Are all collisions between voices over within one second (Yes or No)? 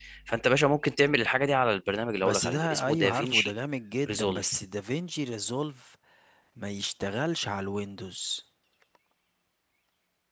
No